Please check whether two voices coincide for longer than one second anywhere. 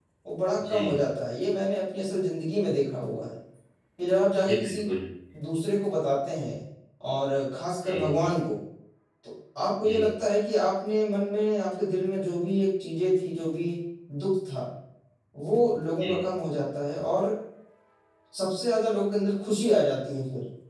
No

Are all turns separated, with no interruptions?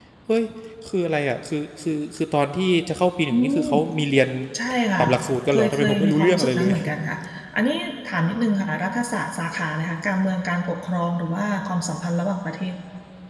No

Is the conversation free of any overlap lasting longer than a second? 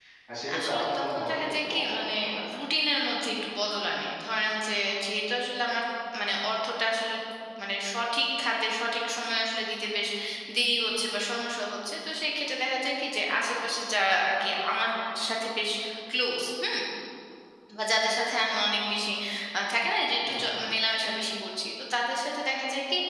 No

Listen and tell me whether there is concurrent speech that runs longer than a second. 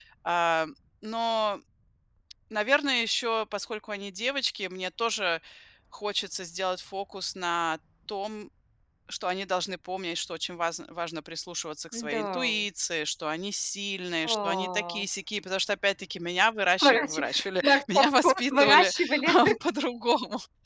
Yes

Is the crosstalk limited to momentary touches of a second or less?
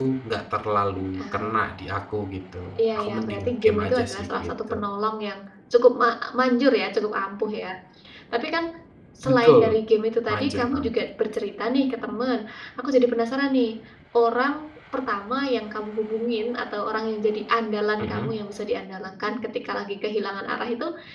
No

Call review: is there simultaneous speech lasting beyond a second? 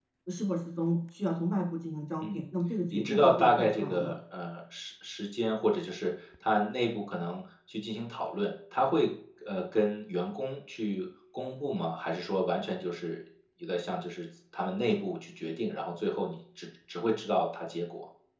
Yes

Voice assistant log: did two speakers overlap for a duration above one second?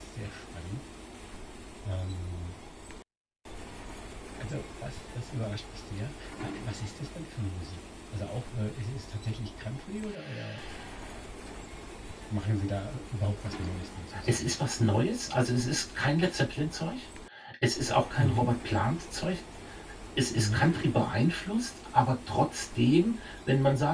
No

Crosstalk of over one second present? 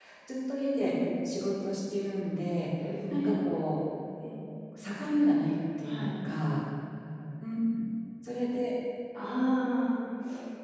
No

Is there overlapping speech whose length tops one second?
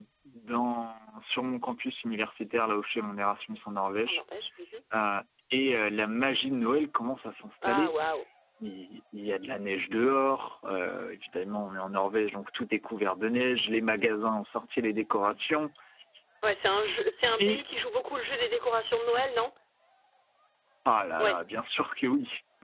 No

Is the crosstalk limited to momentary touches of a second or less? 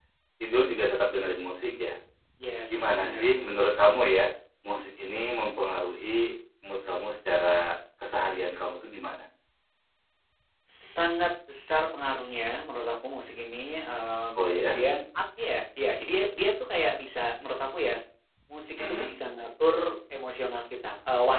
Yes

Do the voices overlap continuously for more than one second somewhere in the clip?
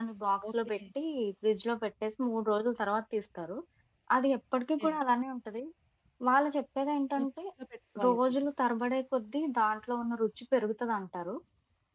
No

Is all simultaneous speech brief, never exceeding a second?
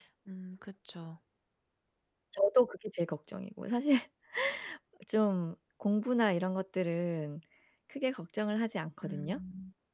Yes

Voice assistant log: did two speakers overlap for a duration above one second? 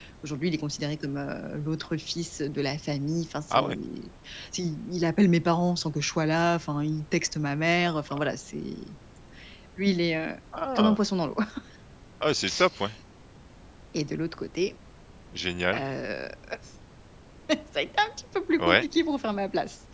No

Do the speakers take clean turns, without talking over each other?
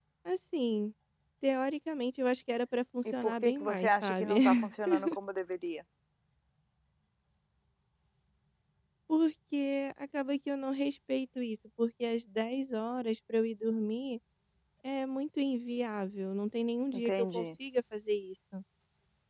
No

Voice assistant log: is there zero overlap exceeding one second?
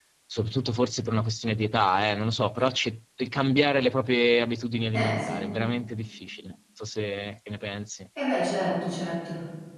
Yes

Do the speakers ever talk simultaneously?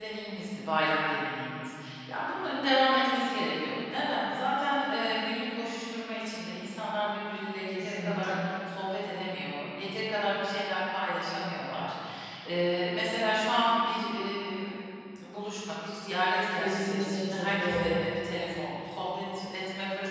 Yes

